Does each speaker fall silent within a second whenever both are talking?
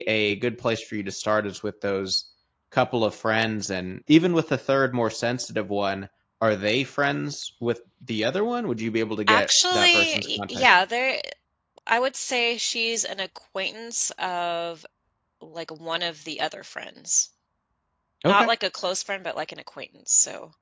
No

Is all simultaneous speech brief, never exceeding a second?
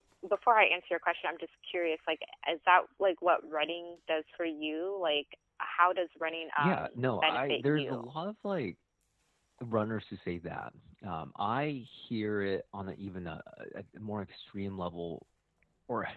No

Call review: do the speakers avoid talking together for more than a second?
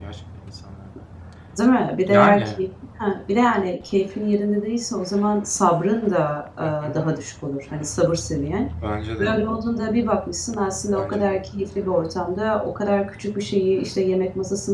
Yes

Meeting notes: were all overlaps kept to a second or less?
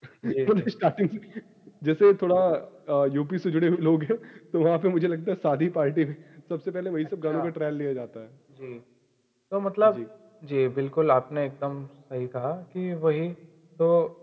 Yes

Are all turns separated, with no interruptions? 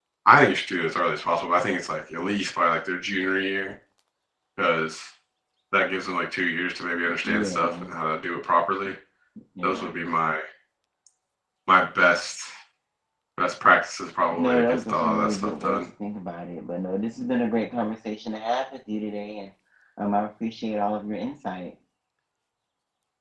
No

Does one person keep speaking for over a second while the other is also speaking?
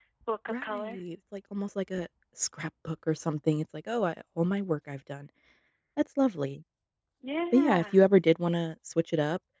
No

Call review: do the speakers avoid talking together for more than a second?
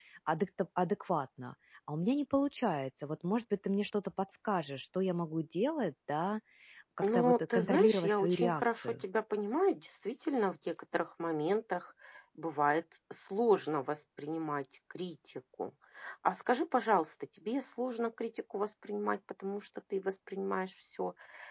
No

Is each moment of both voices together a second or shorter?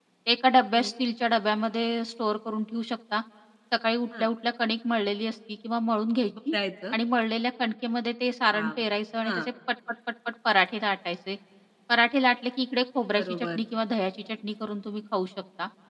Yes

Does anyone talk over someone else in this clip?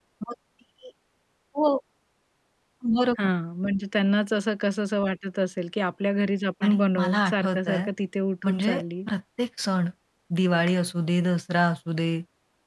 Yes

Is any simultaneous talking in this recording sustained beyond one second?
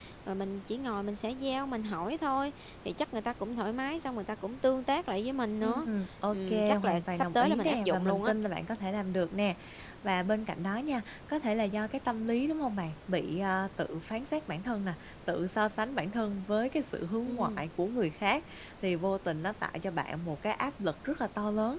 Yes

